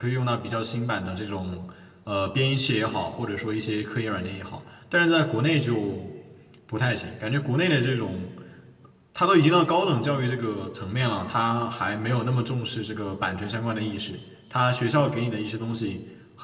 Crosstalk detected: No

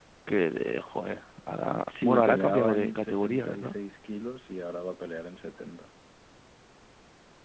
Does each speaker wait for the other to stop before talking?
No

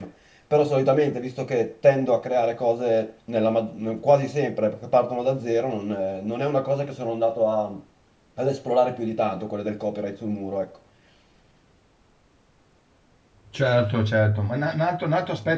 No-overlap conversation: Yes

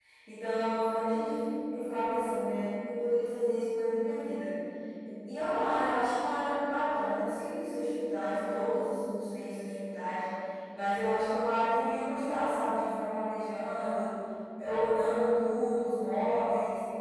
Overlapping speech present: No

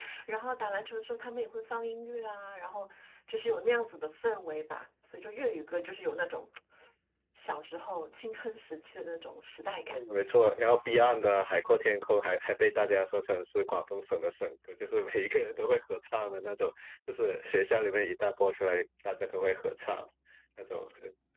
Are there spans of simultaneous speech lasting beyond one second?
No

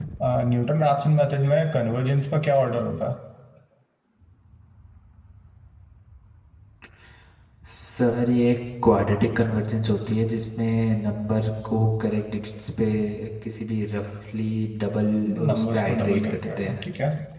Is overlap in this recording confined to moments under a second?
No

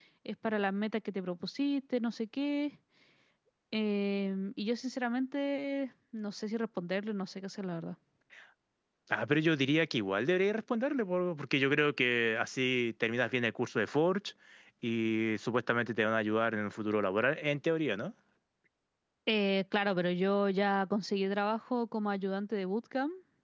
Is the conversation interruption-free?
Yes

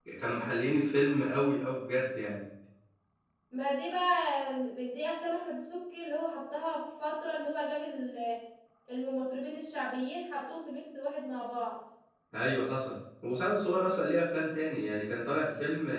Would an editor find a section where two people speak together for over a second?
No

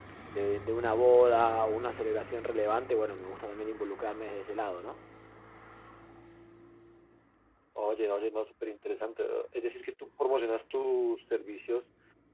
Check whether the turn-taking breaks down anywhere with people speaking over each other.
No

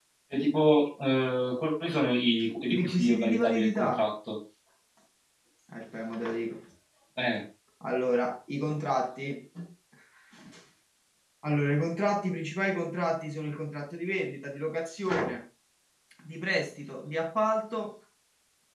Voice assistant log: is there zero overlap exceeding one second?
No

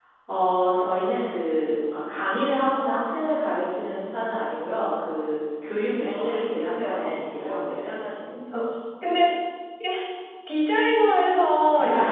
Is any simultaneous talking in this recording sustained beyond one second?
Yes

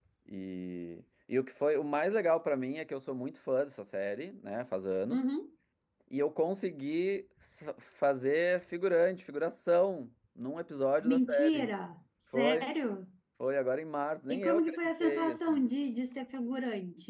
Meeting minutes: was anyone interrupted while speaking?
Yes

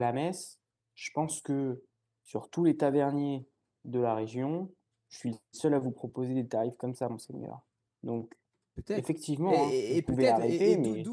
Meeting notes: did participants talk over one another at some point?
Yes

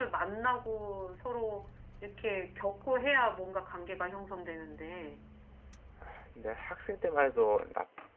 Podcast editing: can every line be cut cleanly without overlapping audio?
Yes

